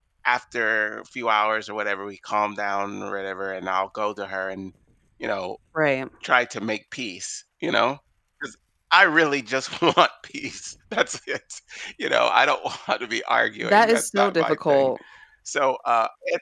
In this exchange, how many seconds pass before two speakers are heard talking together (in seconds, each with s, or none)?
13.6 s